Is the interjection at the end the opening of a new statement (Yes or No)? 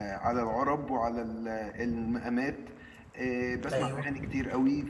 No